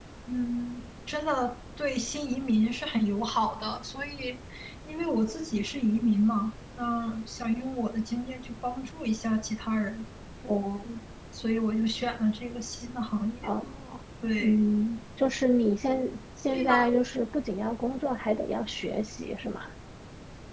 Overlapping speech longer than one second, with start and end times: none

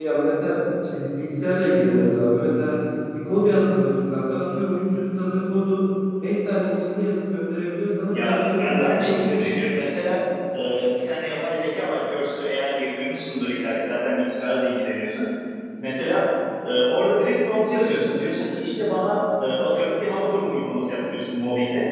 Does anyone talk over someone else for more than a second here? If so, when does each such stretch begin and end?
8.1-9.5

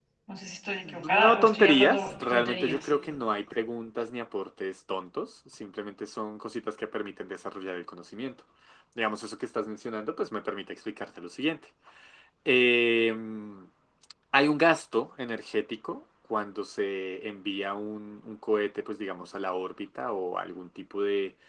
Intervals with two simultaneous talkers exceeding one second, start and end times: 0.8-2.9

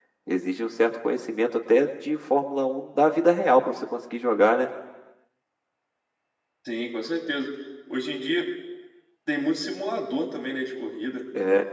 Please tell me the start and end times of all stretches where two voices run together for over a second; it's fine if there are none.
none

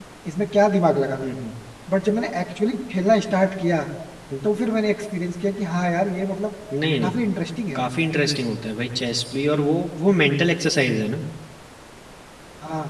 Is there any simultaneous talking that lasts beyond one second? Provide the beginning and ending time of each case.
none

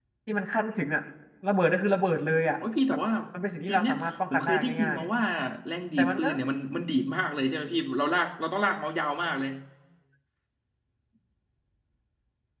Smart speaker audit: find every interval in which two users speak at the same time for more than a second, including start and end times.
3.7-5.0

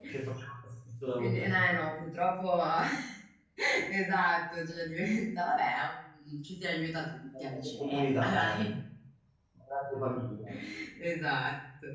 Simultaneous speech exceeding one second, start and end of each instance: 7.4-8.7

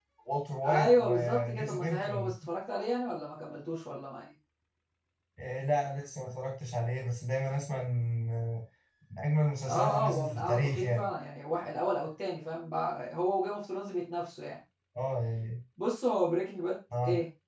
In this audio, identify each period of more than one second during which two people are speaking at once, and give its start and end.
0.6-2.3, 9.6-11.1

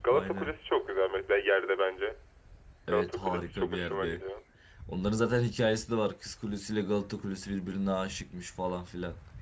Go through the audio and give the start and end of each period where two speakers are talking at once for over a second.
2.9-4.2

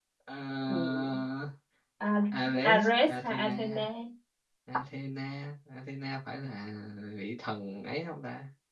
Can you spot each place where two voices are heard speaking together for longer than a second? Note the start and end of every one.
2.6-3.9

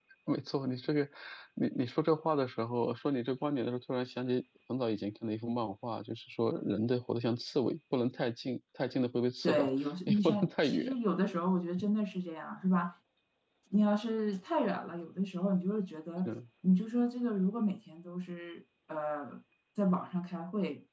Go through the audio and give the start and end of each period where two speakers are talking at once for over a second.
9.4-11.0

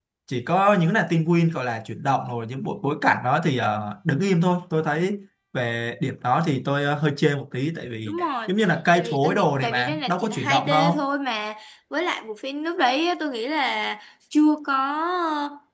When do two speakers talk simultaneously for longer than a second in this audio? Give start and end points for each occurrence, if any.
8.9-11.0

